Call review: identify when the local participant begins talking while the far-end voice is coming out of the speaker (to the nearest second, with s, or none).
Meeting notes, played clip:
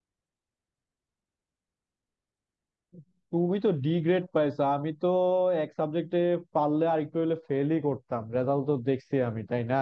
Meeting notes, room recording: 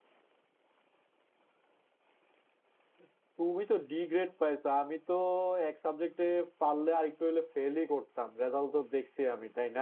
none